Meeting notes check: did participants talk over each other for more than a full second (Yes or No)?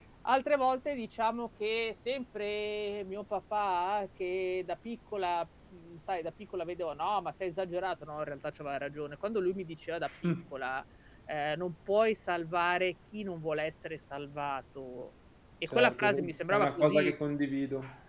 Yes